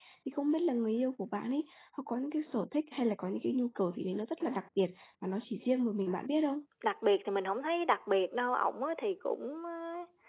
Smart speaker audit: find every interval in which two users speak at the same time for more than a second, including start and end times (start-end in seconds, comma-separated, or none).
none